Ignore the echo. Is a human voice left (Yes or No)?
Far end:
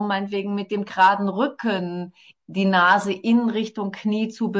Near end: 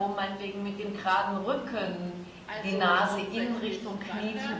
Yes